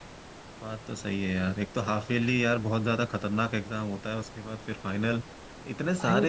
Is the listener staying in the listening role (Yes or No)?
Yes